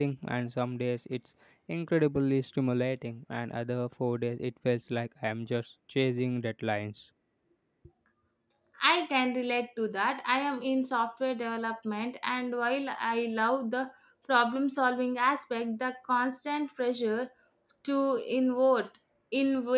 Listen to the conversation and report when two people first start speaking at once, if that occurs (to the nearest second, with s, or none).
none